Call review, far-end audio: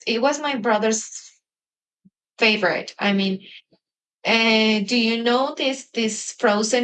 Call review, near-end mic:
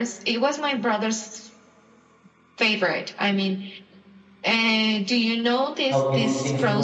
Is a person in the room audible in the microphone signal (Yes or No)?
Yes